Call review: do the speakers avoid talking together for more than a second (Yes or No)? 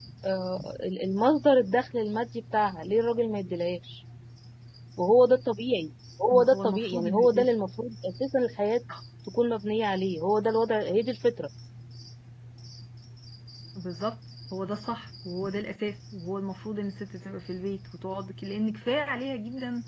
No